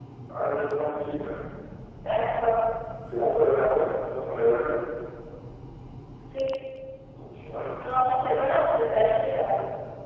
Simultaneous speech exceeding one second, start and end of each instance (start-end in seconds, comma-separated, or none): 7.8-9.2